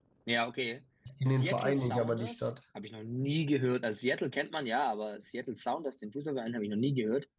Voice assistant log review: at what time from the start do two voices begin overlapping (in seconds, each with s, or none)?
1.2 s